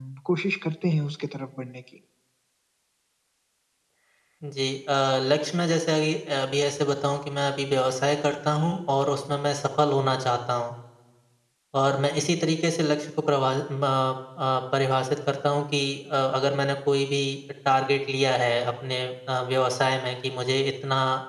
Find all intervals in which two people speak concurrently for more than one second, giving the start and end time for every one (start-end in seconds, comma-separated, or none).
none